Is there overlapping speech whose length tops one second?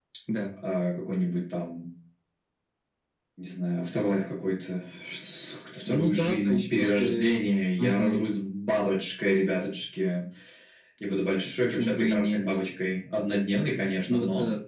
Yes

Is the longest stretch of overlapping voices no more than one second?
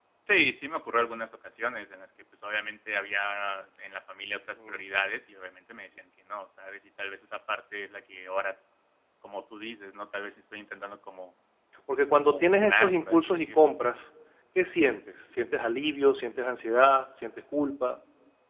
No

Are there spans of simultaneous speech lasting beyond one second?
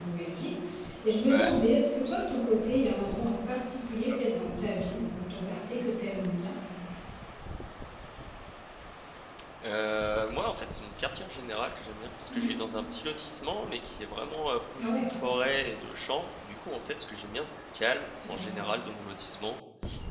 No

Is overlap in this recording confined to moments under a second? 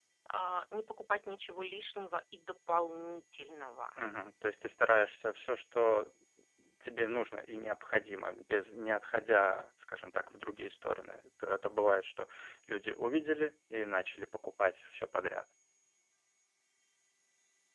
Yes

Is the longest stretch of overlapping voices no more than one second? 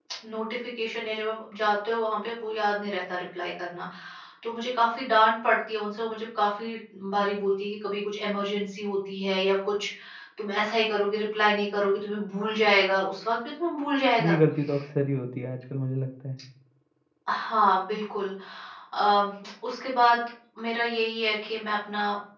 Yes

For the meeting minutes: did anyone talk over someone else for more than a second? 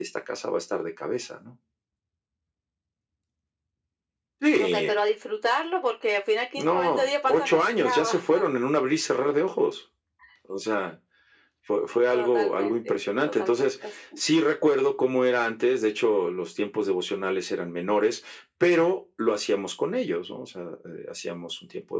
Yes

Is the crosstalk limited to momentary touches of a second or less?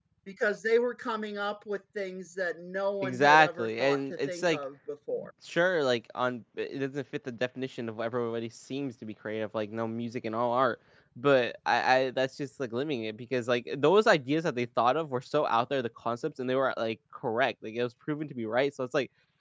No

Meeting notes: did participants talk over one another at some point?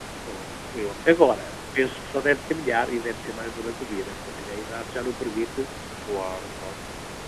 No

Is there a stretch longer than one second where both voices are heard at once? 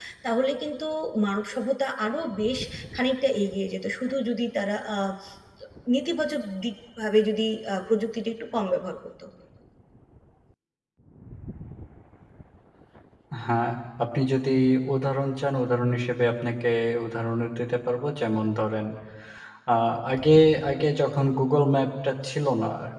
No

